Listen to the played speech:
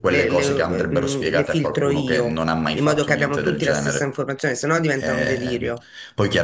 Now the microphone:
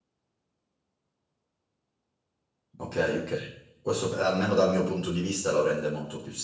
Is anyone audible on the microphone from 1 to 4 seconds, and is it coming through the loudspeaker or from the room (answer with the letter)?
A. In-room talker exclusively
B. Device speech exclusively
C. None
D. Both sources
A